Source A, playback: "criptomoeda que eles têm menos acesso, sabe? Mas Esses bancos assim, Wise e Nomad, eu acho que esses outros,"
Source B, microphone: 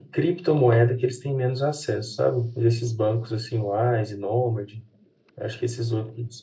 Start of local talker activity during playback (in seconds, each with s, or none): none